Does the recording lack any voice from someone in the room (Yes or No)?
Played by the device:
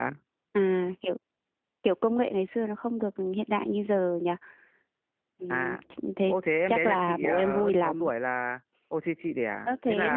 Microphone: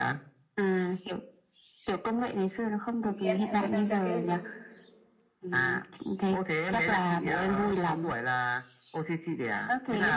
No